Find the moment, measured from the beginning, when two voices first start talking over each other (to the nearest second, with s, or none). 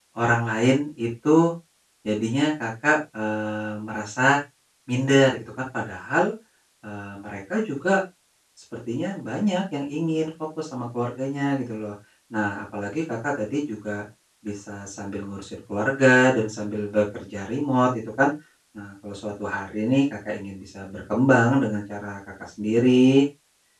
none